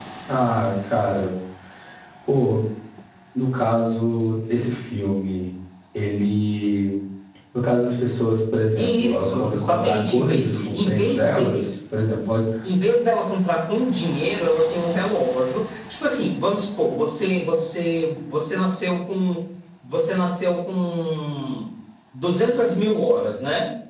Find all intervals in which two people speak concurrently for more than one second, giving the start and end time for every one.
8.8-11.6

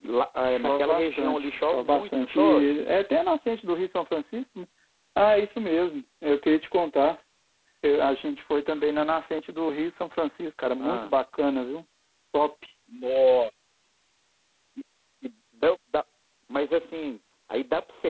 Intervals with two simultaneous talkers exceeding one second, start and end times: 0.5-2.7

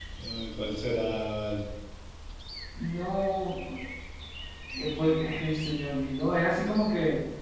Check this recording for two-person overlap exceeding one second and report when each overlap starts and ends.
none

